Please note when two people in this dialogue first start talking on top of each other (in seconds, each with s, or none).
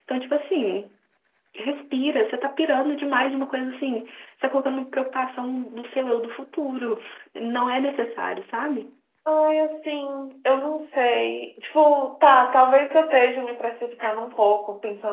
none